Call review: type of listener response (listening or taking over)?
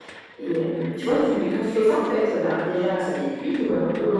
listening